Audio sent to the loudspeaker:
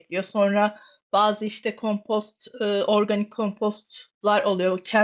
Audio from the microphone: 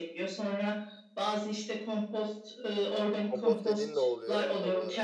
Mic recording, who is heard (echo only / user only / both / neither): both